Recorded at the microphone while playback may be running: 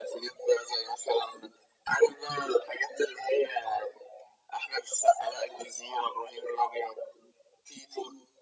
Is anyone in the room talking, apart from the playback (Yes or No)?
No